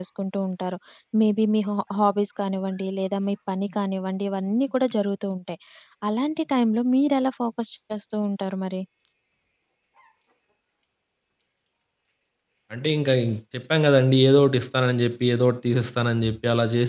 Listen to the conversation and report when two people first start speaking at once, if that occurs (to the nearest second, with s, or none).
none